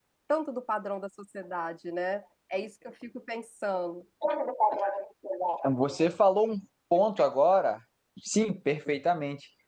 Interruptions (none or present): none